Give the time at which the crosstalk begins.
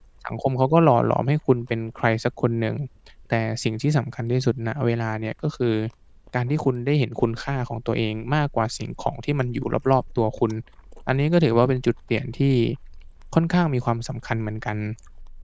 none

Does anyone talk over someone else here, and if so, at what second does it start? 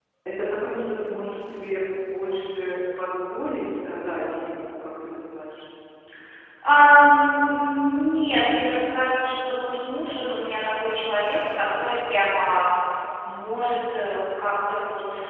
none

